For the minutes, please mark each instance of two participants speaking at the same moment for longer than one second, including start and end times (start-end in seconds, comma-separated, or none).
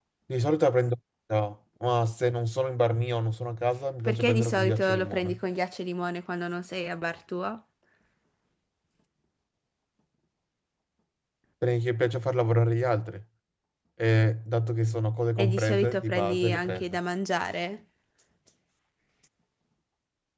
4.0-5.4, 15.4-17.0